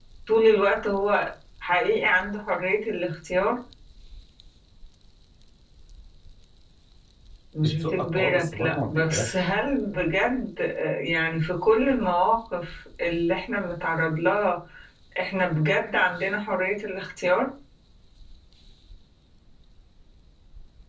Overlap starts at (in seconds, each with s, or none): 7.6 s